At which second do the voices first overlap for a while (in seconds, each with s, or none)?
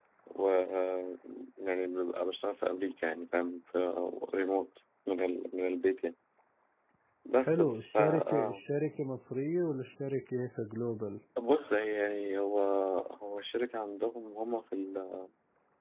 7.4 s